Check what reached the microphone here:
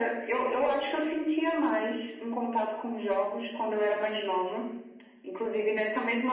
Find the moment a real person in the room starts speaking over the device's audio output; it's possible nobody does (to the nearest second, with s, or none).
none